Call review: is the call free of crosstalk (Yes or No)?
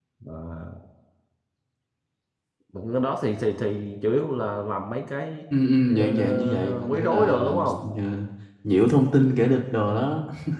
No